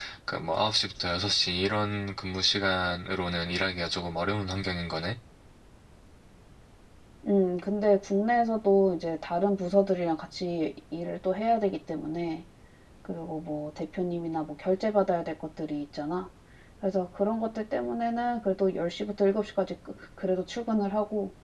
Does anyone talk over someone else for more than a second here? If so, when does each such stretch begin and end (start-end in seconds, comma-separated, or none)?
none